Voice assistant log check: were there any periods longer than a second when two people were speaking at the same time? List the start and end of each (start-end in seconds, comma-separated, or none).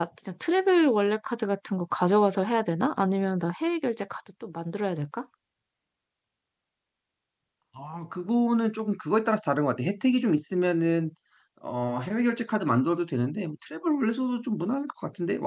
none